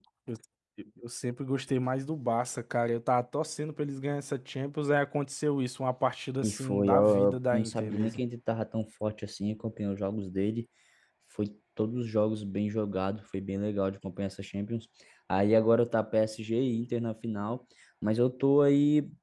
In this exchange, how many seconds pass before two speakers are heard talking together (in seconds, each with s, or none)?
6.4 s